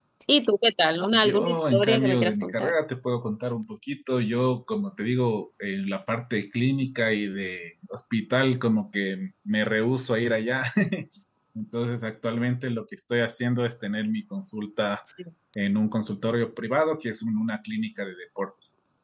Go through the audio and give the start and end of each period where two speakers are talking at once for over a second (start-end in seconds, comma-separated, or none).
1.1-2.7